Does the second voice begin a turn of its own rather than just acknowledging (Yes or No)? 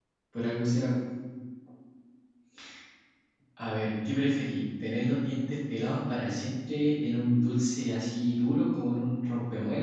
No